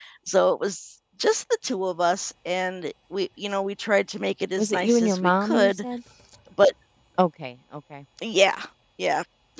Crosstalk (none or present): present